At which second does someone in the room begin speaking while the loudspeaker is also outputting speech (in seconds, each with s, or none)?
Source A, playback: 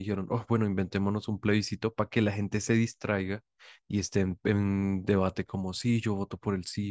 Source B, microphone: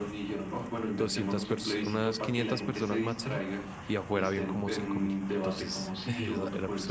1.0 s